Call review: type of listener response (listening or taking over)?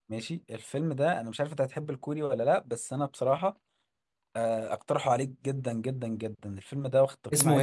taking over